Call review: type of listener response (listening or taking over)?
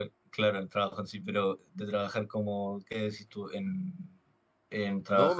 taking over